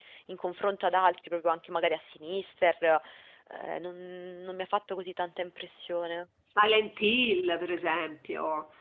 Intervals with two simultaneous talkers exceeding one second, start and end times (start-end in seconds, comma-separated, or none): none